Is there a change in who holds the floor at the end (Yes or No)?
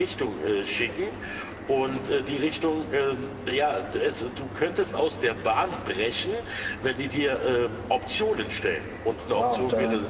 Yes